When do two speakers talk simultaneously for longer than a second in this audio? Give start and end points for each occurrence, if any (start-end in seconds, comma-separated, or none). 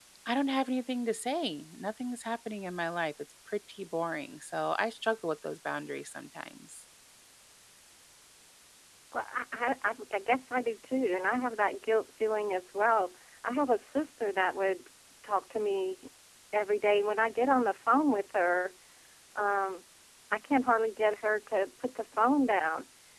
none